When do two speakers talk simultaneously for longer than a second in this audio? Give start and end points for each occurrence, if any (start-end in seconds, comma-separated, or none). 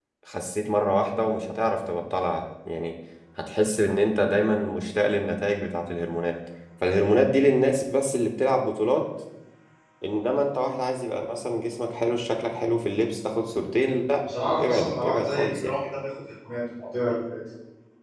14.2-15.7